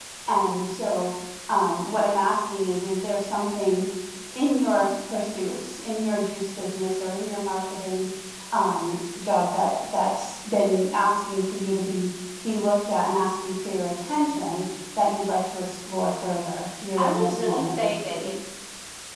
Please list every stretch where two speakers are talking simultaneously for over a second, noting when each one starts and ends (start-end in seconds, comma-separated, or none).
17.0-18.3